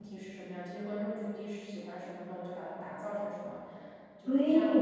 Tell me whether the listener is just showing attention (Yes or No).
No